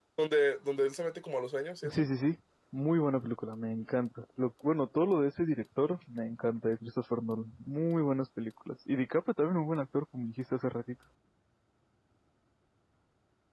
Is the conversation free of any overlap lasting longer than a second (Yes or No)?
Yes